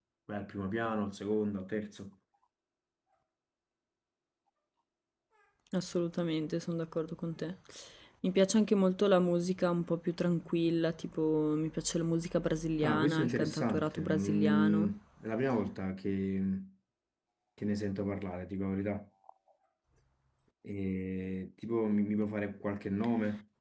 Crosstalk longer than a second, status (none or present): present